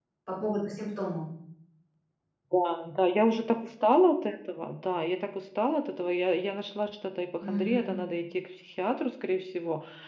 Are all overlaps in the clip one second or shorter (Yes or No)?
Yes